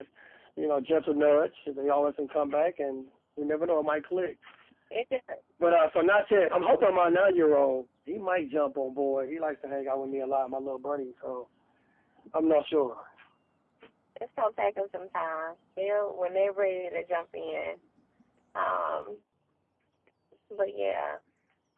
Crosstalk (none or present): none